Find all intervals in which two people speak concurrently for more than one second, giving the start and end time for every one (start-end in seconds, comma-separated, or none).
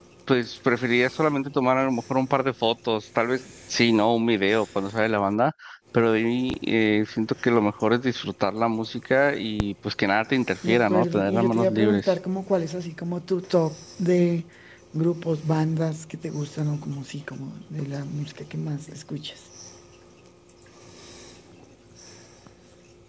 10.7-12.1